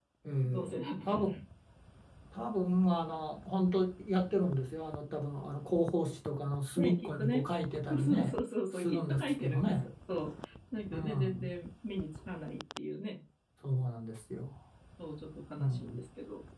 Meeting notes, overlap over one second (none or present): present